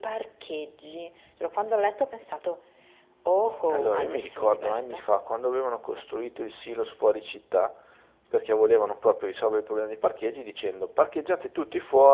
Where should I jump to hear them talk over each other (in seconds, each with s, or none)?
3.7 s